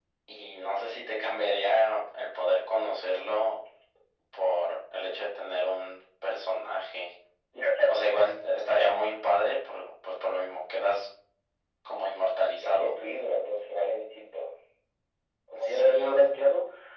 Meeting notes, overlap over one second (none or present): none